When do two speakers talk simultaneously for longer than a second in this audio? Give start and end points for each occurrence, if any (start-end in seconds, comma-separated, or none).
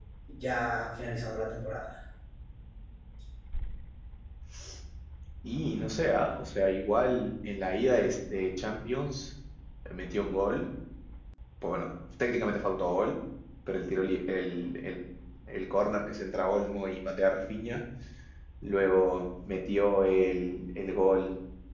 none